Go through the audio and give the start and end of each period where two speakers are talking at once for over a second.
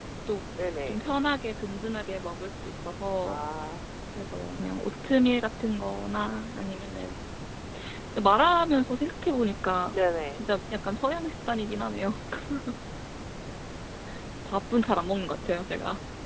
none

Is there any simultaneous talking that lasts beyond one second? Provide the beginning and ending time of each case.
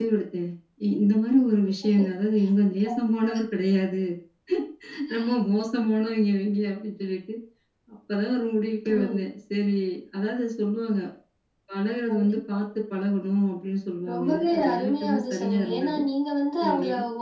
14.1-16.0

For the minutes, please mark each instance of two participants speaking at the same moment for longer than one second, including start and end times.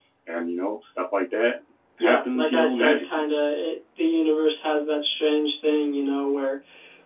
2.0-3.3

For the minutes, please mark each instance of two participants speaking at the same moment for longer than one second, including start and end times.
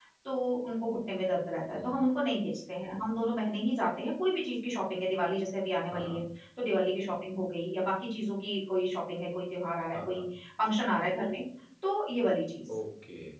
none

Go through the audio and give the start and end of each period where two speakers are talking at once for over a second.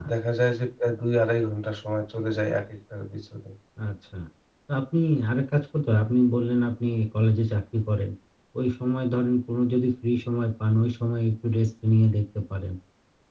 none

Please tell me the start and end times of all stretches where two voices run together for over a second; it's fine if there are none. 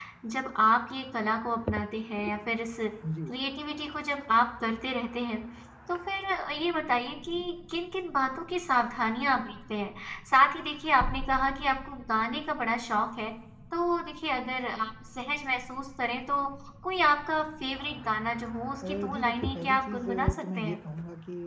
18.9-20.8

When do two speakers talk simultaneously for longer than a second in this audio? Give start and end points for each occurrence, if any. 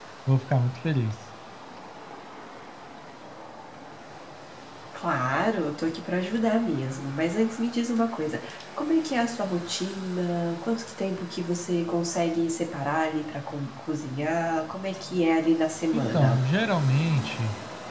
none

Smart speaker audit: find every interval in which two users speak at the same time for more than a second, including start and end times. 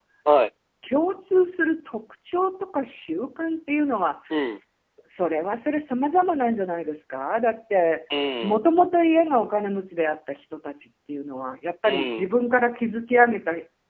none

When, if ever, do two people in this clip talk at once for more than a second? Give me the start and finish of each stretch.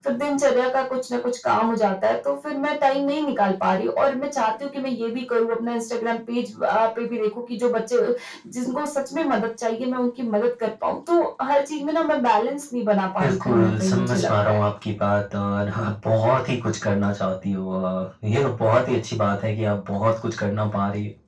13.2-14.6

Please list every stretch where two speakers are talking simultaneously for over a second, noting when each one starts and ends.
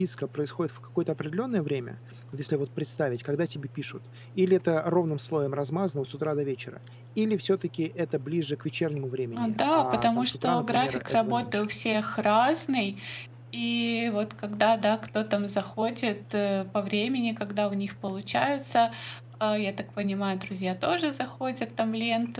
9.3-11.7

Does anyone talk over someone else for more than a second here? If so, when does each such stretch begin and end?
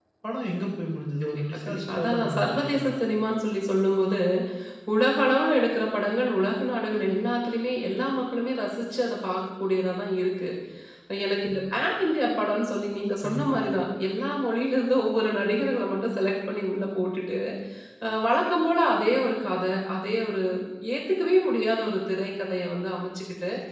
1.2-2.9

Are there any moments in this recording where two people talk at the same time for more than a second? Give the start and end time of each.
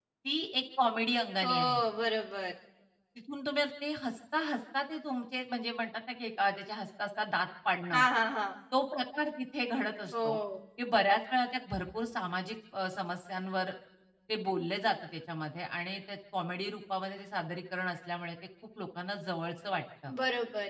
none

